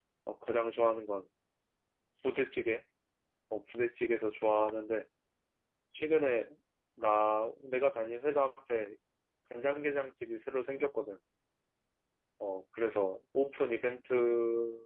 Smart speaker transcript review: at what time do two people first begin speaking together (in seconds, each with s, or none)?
none